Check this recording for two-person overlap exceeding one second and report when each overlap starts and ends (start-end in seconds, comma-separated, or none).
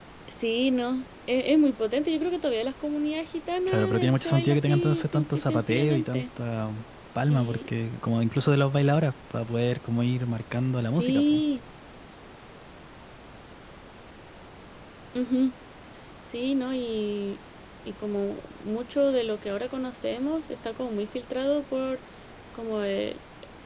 3.7-6.2